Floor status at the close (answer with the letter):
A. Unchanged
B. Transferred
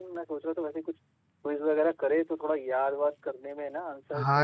B